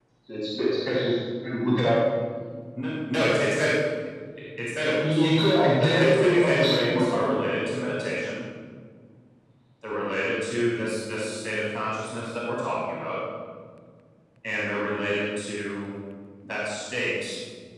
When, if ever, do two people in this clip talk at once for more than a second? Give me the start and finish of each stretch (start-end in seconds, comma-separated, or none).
5.8-7.3